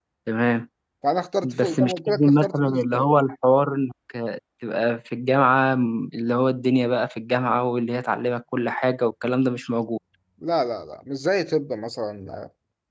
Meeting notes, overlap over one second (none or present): present